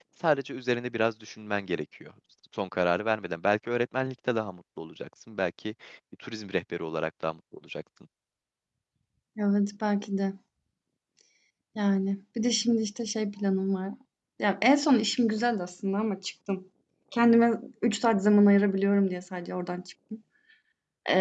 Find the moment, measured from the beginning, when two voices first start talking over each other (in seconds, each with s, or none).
none